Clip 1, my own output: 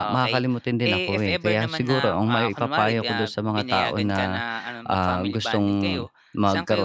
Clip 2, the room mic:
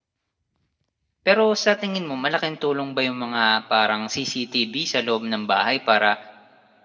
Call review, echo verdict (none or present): none